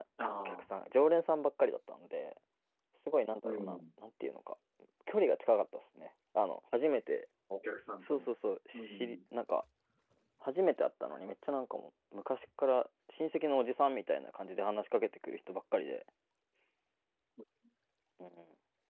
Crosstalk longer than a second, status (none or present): none